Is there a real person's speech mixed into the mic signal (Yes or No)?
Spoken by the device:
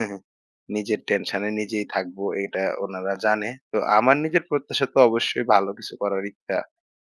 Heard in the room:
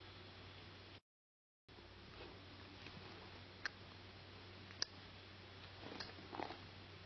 No